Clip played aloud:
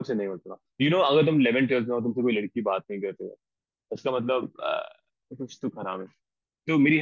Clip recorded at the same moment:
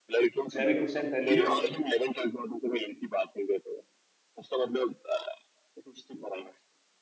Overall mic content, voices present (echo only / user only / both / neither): both